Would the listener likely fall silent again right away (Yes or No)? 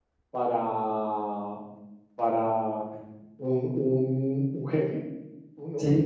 Yes